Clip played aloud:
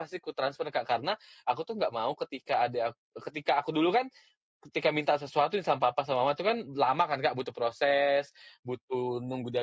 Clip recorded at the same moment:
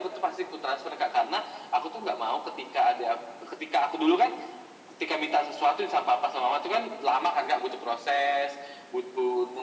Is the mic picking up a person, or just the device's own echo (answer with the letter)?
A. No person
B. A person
A